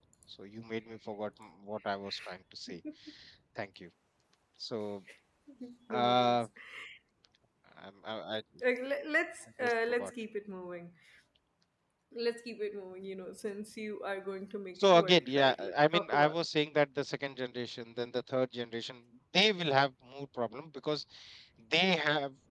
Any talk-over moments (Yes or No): Yes